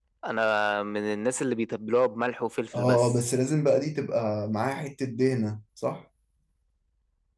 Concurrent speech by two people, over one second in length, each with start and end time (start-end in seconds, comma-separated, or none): none